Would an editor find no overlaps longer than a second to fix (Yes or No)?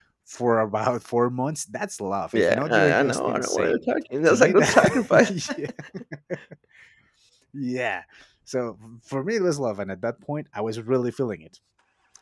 No